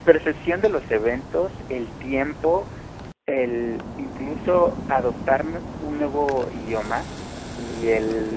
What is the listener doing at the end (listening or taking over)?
listening